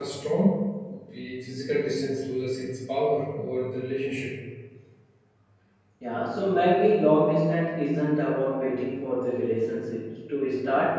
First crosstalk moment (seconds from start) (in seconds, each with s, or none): none